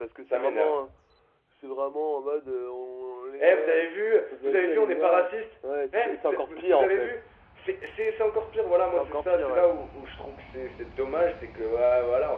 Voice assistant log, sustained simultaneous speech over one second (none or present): present